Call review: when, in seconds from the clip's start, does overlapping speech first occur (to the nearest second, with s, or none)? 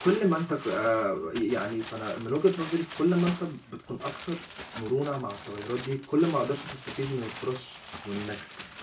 none